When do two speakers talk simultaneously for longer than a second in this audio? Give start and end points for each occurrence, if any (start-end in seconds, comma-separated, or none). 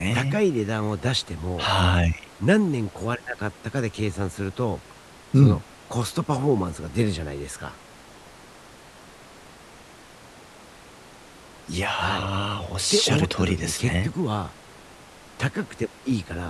12.9-14.1